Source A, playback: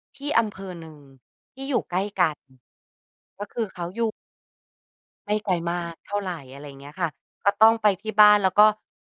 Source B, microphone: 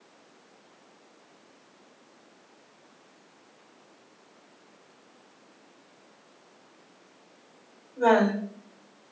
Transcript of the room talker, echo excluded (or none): ค่ะ